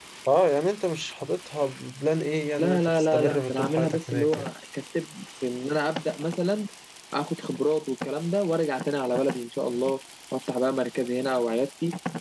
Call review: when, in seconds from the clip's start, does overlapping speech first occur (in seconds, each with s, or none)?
2.6 s